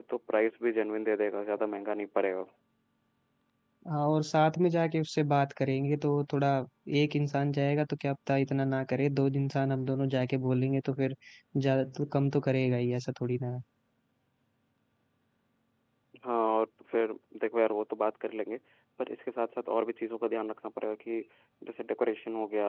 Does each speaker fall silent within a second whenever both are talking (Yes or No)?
Yes